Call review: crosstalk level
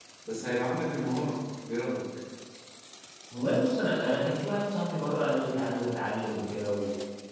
none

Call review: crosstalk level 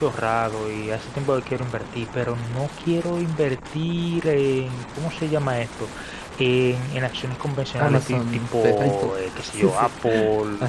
present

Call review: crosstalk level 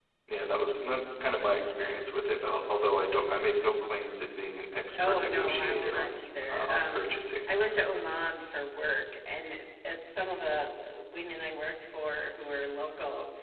present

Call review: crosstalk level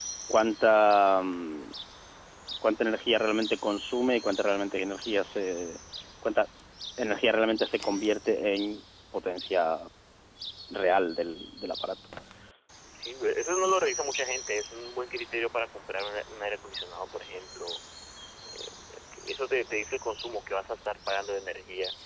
none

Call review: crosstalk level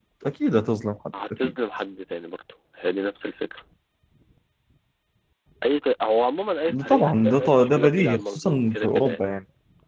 present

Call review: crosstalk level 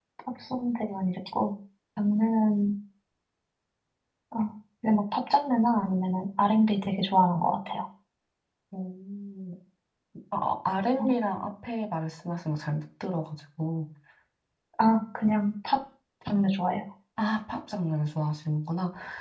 none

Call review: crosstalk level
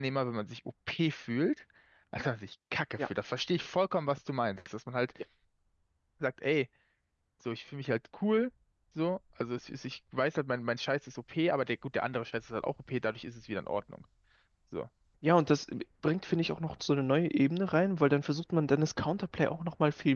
none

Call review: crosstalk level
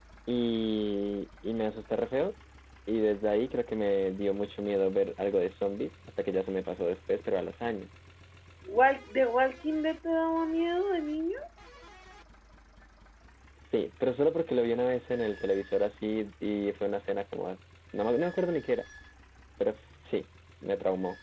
none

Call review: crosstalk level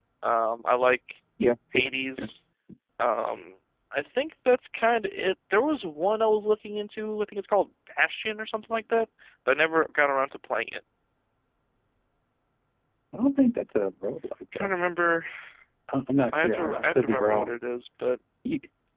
present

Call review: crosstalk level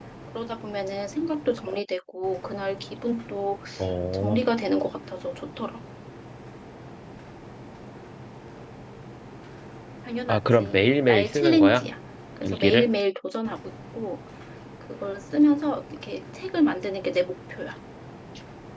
present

